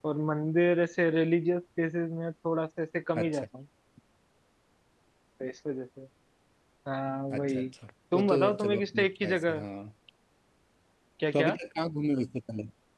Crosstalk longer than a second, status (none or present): present